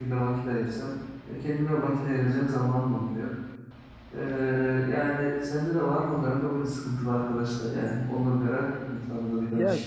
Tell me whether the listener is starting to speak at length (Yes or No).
Yes